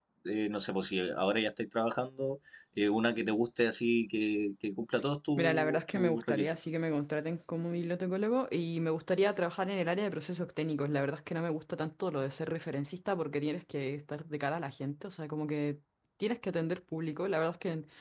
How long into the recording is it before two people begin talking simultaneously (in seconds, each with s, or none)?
5.4 s